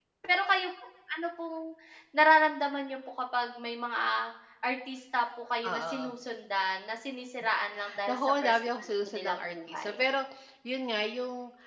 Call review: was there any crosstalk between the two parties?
Yes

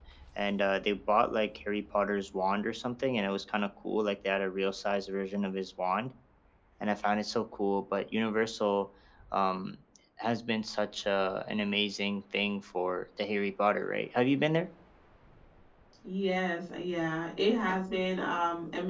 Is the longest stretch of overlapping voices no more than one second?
Yes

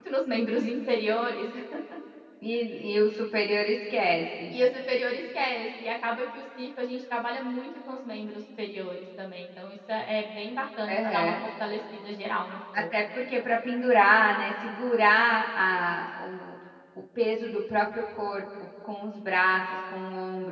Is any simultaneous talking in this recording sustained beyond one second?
No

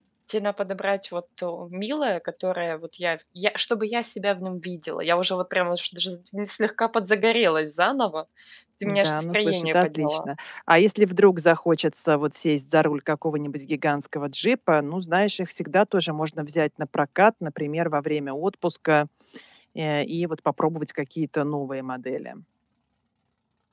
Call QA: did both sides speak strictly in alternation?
No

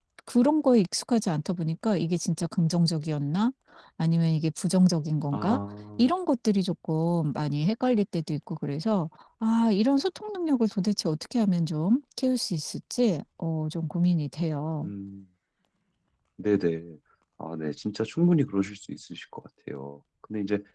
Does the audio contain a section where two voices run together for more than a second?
No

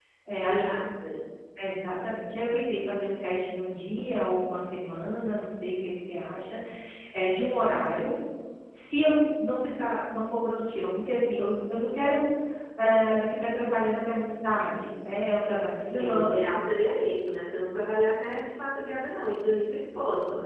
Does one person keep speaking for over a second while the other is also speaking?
No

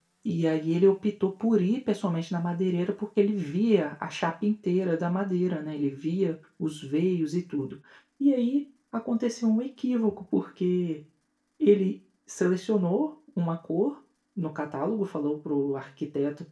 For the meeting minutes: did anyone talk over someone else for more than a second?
No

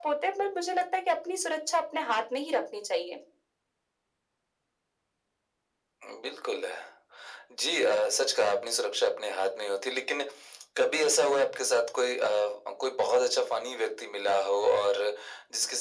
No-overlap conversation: Yes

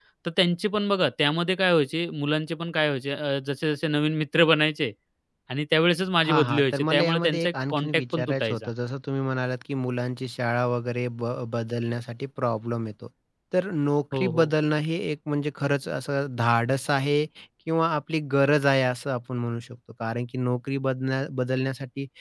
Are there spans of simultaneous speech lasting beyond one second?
Yes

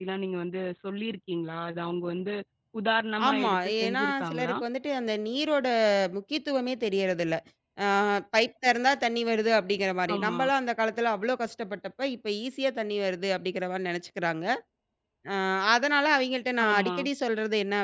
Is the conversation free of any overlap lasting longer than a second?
No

